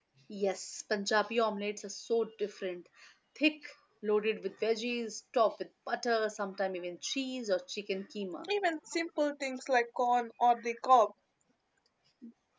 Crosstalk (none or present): none